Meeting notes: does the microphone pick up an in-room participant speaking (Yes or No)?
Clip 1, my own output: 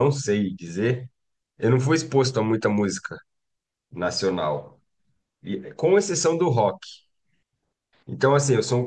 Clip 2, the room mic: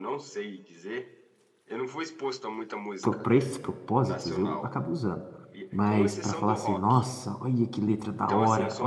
Yes